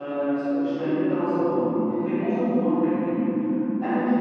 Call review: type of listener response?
listening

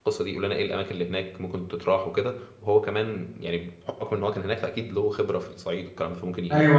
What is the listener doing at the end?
taking over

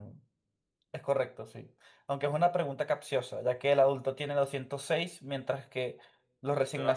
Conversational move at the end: taking over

